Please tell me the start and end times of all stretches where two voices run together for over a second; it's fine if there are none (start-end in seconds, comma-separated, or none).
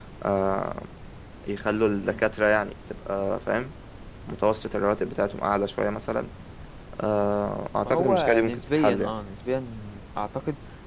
7.8-9.1